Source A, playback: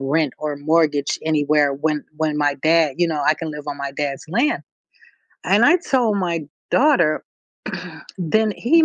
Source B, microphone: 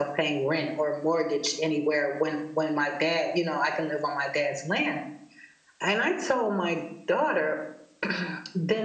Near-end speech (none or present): none